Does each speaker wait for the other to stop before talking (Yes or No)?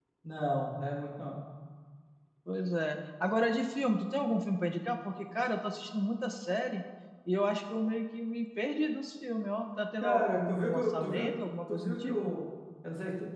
No